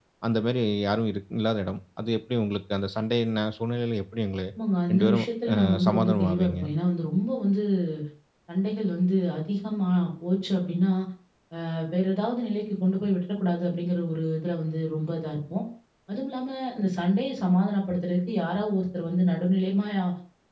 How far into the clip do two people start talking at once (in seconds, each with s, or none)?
4.9 s